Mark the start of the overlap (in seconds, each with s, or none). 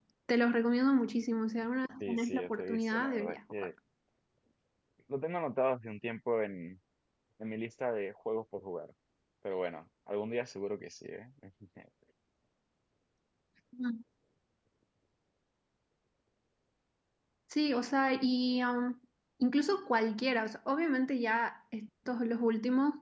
2.0 s